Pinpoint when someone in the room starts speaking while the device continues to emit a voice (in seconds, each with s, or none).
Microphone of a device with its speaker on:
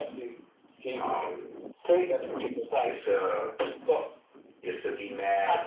none